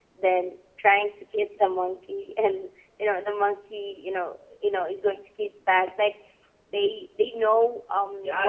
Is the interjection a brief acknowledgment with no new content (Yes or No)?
No